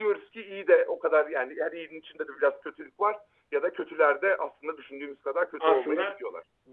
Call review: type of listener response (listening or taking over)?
taking over